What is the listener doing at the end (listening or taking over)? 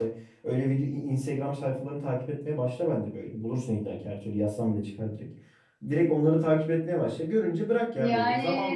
listening